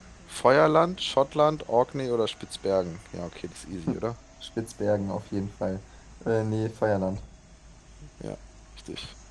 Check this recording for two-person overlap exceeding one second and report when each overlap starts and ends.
none

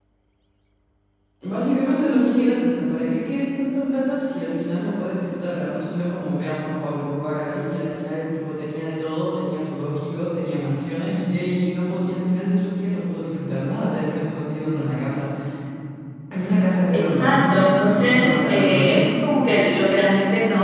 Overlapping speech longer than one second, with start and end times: 16.9-19.1

